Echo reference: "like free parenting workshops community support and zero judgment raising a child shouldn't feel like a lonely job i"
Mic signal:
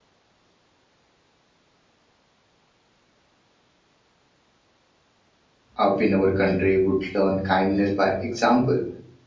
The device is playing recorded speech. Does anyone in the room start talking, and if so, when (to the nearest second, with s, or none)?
6 s